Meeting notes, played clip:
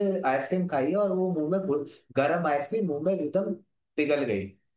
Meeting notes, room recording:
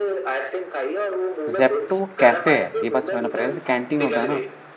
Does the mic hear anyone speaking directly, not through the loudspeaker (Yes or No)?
Yes